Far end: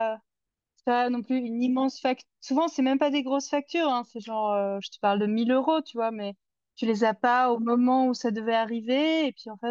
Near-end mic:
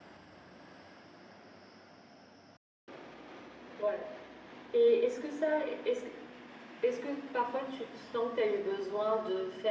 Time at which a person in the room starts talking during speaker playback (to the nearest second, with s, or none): 4 s